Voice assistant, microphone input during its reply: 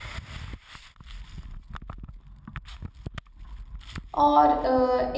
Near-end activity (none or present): present